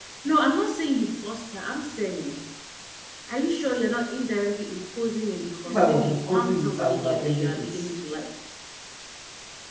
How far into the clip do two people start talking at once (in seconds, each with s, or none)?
5.7 s